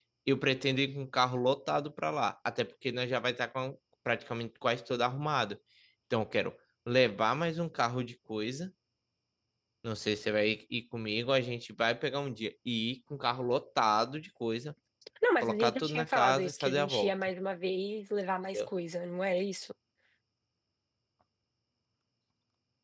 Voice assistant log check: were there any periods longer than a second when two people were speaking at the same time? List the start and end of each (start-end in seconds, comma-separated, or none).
15.4-17.1